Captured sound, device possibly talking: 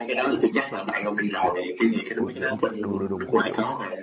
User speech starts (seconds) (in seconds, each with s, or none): 2.2 s